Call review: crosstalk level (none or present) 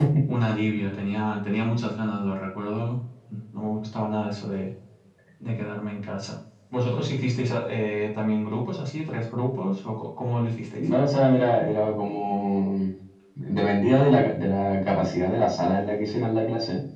none